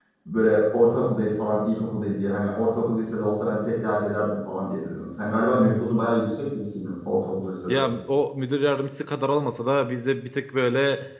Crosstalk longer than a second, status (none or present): none